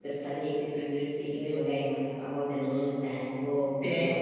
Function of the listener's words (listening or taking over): listening